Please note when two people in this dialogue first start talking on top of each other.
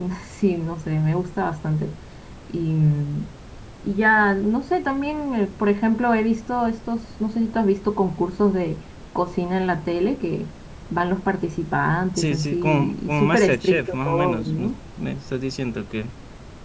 12.2 s

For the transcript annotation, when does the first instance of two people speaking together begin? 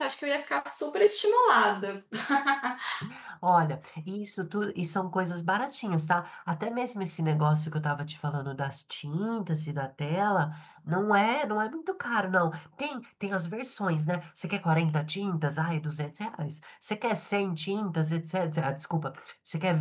none

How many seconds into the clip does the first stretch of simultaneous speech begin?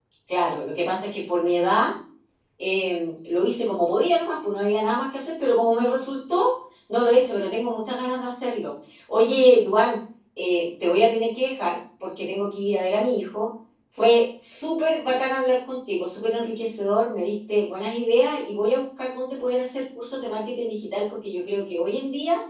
none

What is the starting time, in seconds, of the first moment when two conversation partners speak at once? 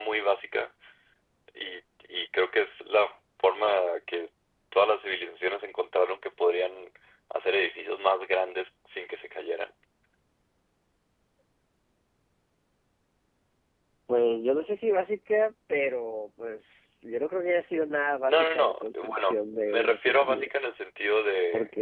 18.3 s

